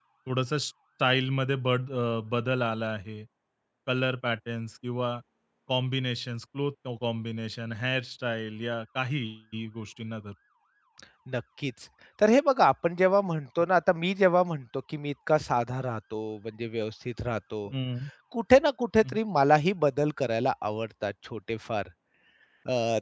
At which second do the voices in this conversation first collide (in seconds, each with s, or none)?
none